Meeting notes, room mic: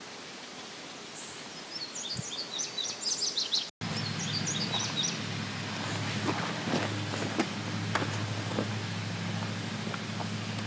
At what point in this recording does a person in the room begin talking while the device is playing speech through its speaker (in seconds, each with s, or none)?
none